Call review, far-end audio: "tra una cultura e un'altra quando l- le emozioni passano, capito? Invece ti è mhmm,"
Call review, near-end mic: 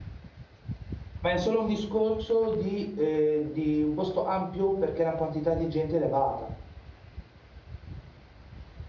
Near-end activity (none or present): present